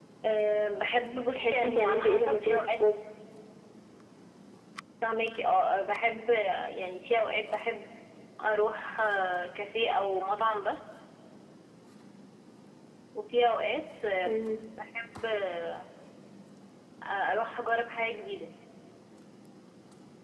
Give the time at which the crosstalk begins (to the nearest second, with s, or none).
1 s